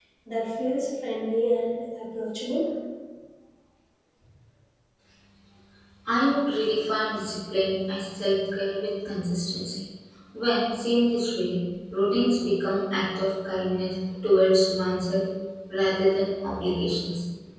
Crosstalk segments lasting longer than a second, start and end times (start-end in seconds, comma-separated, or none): none